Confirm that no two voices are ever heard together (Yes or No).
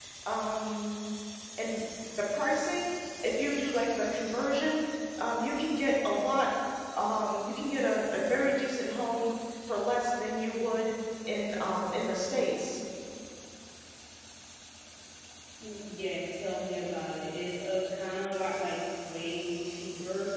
Yes